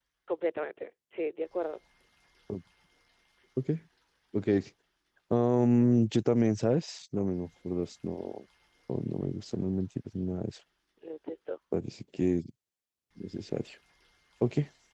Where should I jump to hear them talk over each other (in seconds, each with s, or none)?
none